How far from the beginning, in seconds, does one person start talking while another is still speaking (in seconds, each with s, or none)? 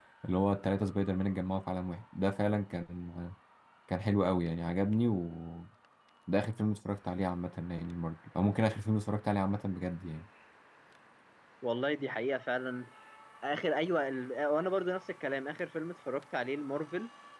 none